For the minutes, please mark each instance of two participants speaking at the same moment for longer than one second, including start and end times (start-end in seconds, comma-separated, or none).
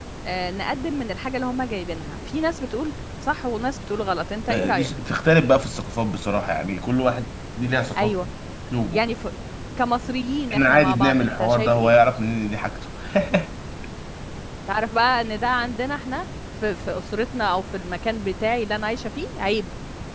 10.5-11.9